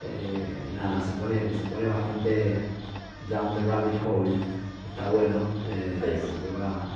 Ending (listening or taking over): listening